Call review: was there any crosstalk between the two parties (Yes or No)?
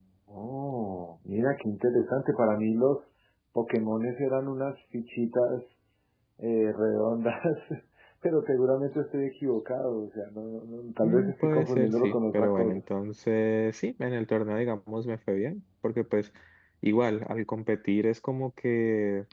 Yes